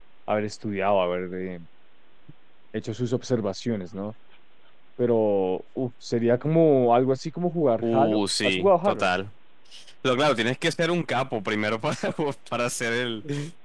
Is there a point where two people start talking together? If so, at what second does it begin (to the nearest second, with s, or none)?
8 s